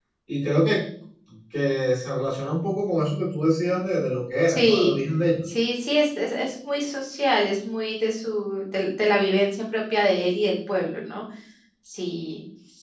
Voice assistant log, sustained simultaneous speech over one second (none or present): none